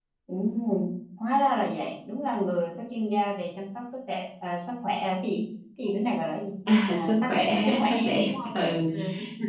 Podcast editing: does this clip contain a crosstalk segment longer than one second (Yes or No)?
Yes